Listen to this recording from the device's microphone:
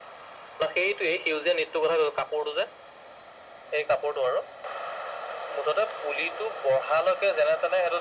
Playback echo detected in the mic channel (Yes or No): Yes